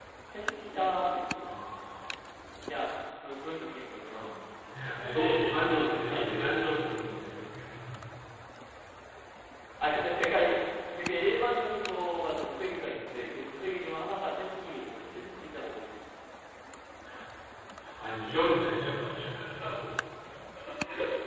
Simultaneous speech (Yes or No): Yes